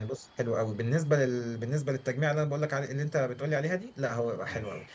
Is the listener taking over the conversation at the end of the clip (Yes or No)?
No